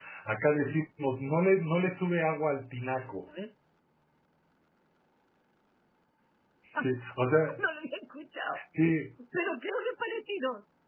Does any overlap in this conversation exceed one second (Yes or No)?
No